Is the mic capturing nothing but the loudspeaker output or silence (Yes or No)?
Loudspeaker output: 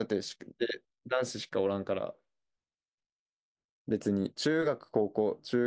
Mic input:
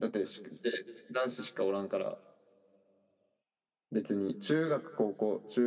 Yes